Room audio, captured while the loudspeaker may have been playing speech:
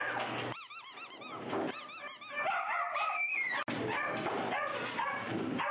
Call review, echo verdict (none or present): none